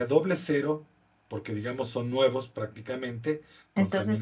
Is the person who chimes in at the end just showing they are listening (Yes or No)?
No